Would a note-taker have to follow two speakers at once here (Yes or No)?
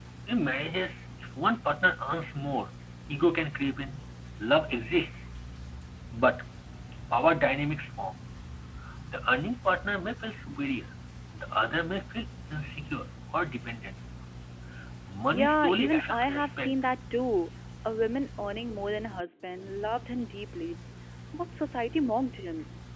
Yes